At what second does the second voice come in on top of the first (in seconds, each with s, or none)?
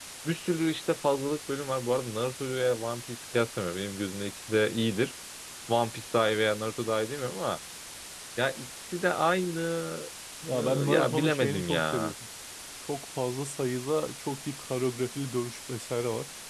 10.5 s